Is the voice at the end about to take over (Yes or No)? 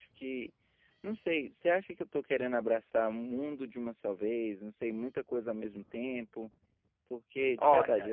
No